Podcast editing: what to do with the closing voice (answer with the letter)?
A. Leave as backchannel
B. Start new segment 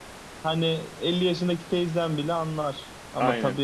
A